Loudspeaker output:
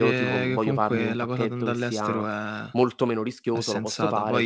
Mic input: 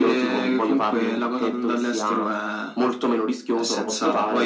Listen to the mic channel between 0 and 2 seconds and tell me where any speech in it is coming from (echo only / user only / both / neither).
echo only